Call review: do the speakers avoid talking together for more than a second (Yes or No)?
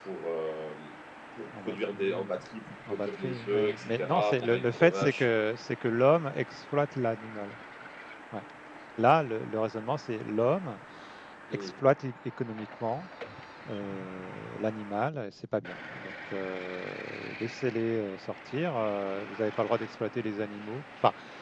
No